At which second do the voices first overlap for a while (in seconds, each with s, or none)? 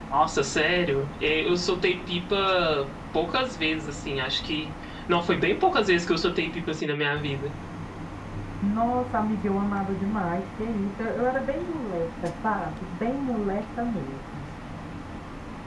none